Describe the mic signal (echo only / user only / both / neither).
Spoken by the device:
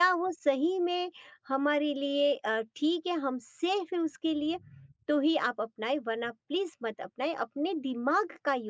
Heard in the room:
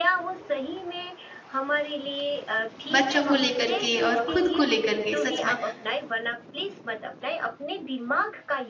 both